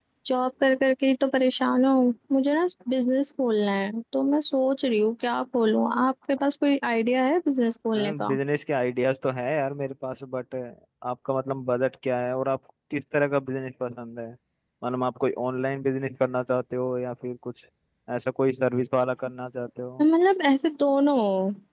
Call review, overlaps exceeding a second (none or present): none